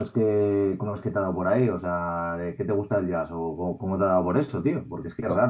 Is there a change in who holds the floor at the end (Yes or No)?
No